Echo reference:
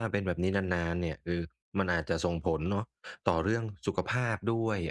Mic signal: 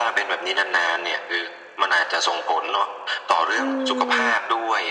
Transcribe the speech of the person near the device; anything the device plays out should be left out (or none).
อืม